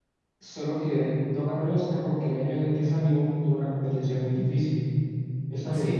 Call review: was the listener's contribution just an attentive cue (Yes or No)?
Yes